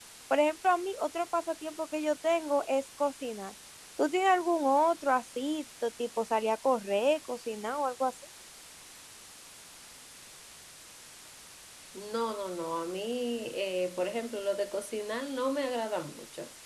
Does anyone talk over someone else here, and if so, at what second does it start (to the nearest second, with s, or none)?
none